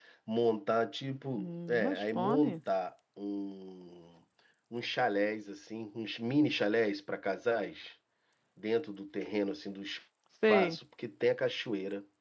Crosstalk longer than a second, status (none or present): present